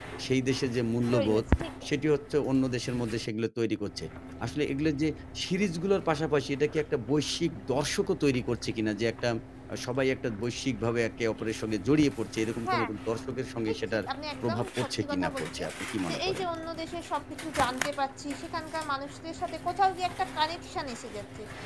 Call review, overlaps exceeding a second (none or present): present